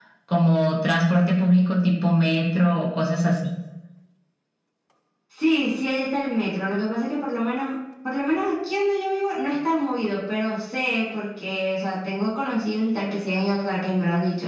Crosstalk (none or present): none